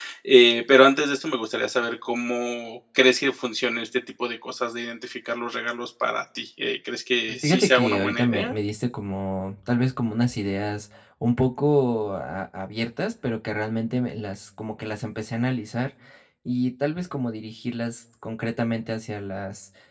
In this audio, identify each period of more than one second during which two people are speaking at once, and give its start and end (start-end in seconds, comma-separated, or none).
7.3-8.5